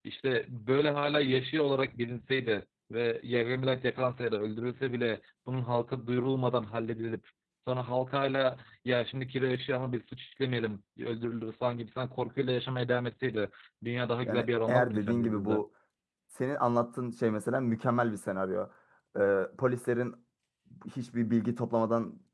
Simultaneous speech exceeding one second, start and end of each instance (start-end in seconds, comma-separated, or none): 14.2-15.6